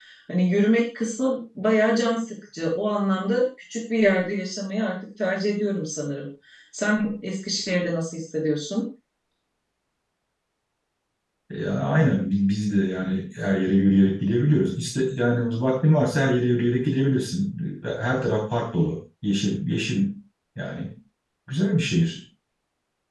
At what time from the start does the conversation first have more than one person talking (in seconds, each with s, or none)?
none